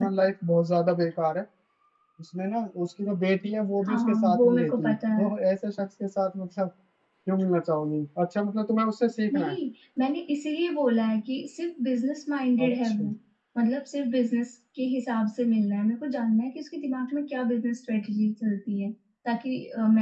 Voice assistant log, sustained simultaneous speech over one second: present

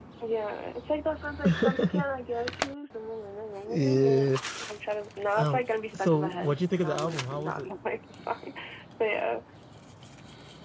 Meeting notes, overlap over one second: present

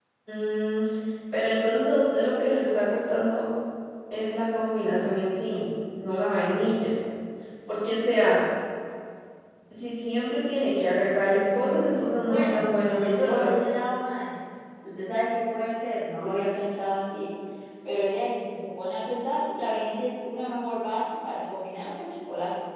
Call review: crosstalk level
present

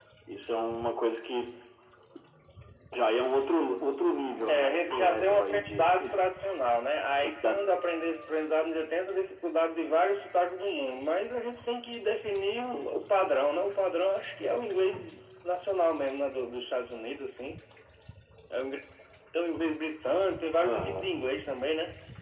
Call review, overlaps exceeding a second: present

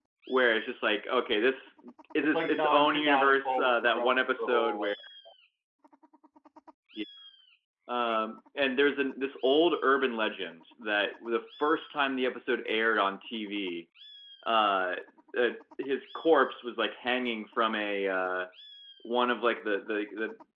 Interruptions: present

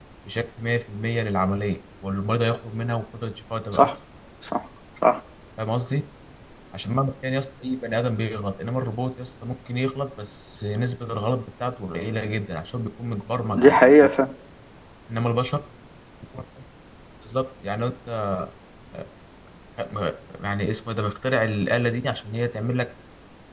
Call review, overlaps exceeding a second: none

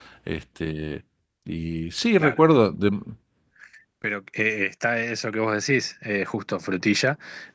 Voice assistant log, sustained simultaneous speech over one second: none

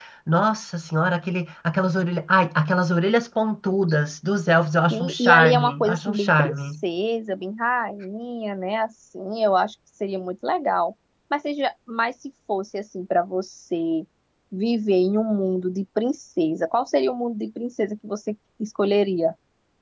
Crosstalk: present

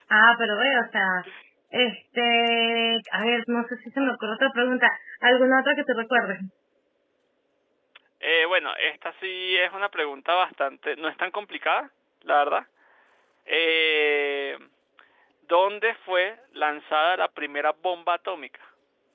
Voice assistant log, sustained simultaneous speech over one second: none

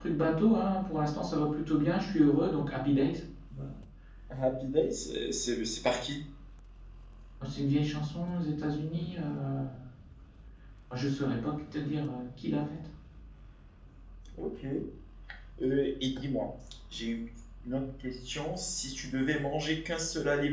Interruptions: none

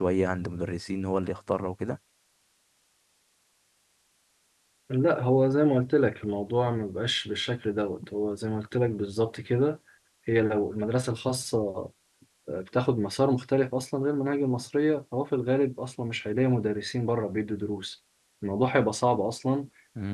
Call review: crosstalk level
none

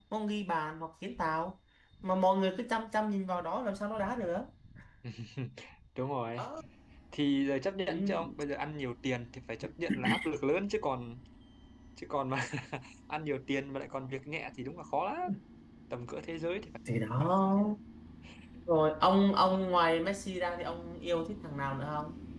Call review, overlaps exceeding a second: none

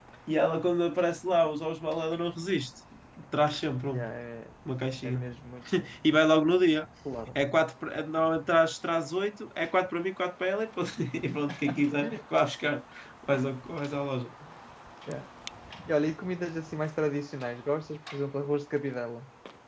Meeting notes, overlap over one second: none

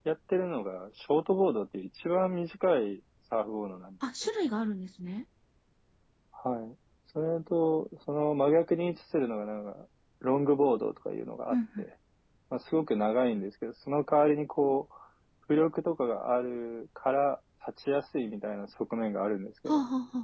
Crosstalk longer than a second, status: none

